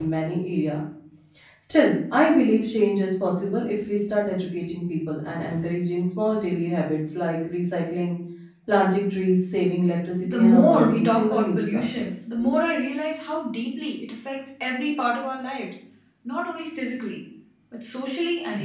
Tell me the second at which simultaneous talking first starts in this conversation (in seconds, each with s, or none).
10.2 s